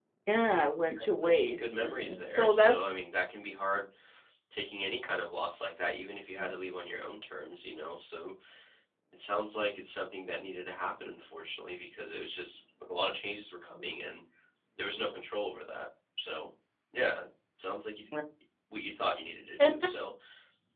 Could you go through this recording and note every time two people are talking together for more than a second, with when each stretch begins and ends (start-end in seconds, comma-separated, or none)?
0.8-2.8